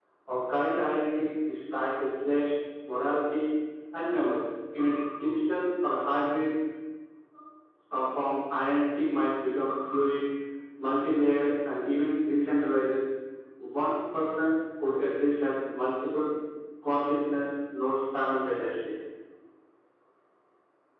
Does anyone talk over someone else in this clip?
No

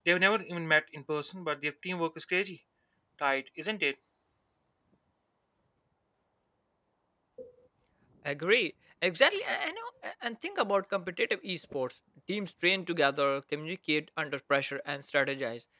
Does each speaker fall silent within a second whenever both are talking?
Yes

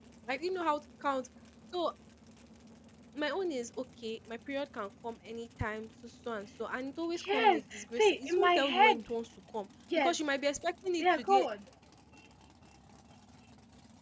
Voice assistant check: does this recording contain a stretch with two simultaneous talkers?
Yes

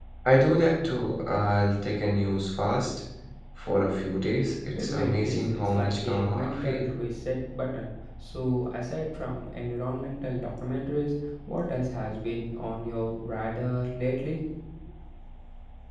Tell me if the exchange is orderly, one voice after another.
No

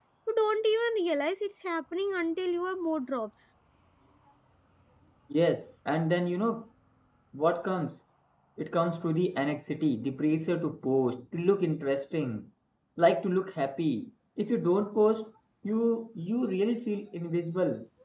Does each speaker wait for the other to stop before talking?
Yes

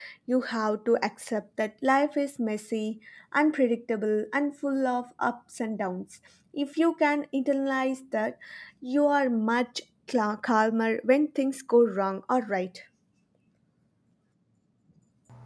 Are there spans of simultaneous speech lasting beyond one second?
No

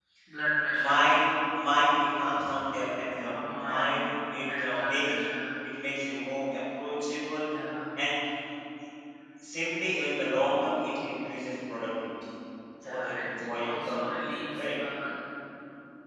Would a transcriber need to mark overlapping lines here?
Yes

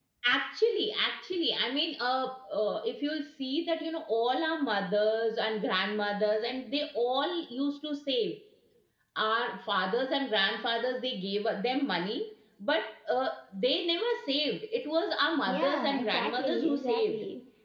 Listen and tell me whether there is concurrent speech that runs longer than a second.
Yes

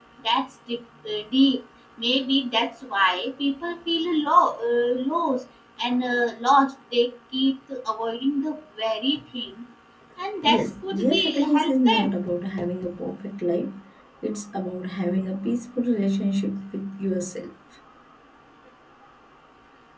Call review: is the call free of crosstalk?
No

